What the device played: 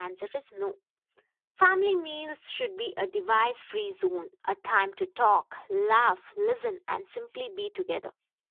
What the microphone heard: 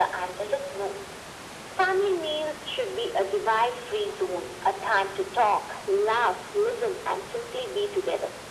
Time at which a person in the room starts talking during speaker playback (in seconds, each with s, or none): none